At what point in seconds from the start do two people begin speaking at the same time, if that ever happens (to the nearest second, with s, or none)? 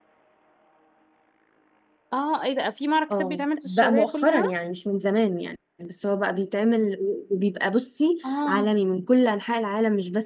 3 s